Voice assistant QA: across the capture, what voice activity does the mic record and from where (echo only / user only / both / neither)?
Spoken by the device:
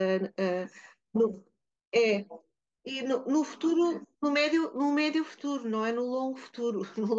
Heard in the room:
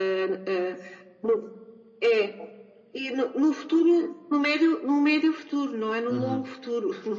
both